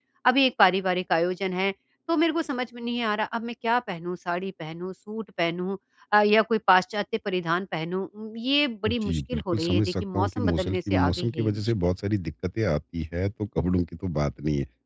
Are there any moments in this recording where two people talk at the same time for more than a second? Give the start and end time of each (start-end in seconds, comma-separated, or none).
8.9-11.7